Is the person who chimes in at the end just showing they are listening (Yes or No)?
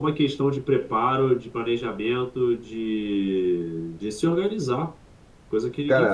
No